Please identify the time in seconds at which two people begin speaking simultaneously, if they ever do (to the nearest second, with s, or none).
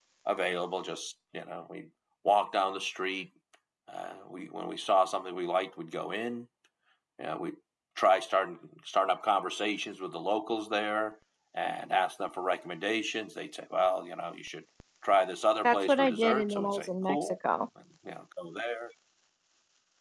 16 s